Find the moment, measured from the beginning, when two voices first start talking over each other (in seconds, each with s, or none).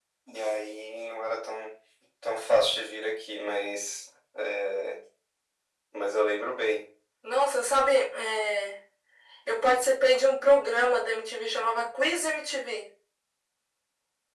none